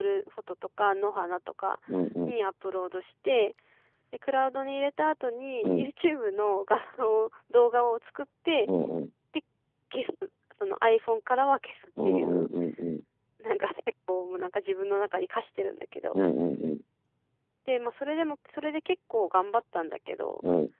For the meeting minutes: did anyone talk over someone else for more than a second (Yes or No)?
No